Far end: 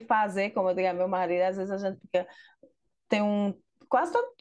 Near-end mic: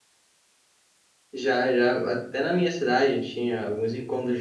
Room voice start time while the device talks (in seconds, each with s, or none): 1.3 s